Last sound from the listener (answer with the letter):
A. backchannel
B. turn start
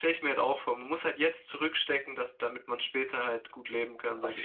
B